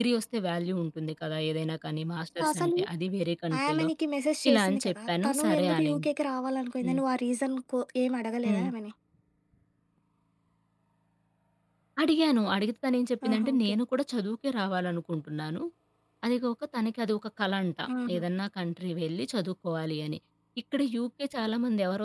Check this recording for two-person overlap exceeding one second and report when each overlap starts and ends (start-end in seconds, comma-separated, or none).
4.5-6.1